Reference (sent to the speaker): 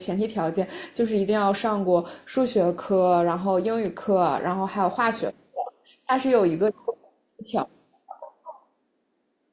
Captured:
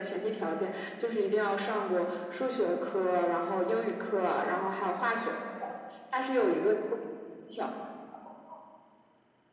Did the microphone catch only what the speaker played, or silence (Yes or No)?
Yes